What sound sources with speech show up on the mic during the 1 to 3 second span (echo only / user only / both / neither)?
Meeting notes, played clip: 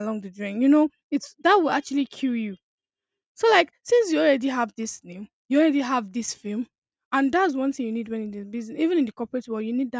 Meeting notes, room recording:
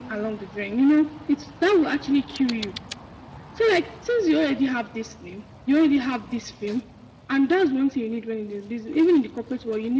echo only